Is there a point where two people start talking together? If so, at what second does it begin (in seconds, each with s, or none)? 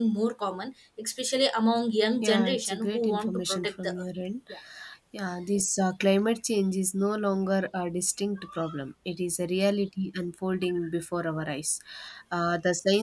2.2 s